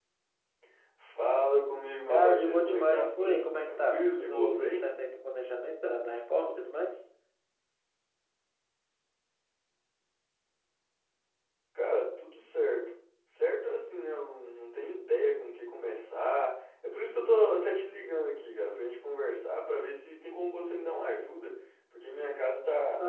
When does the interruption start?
2.1 s

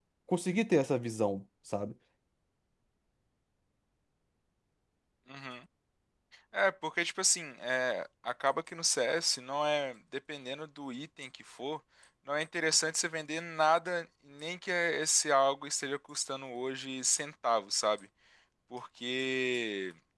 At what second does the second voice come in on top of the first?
none

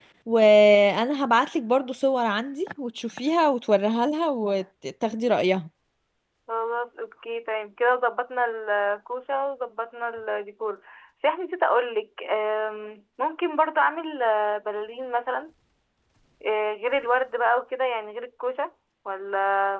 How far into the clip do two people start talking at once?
none

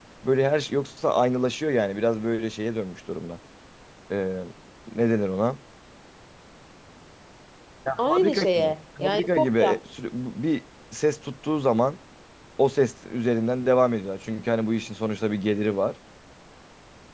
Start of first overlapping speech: 8.1 s

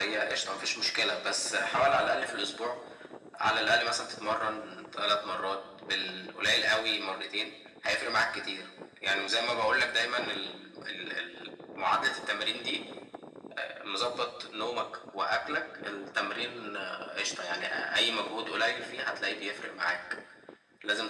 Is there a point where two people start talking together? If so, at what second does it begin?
none

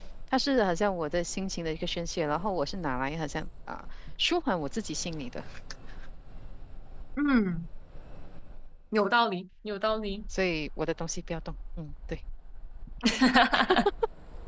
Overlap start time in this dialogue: none

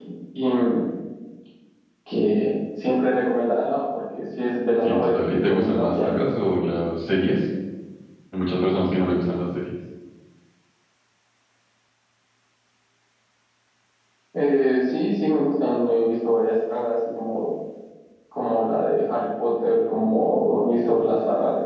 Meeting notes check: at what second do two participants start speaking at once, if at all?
4.8 s

